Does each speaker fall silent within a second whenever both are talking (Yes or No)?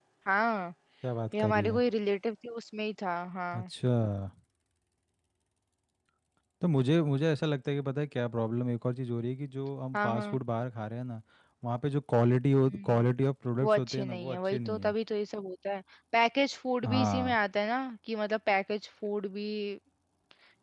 No